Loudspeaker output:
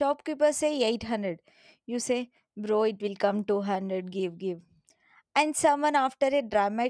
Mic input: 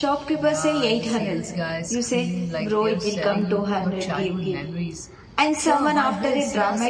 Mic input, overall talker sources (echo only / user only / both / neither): both